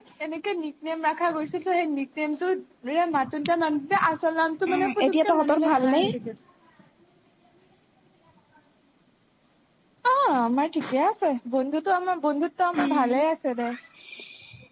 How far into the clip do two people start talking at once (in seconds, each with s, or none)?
4.7 s